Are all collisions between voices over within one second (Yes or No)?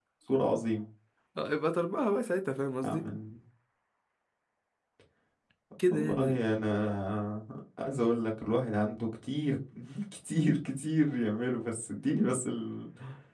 Yes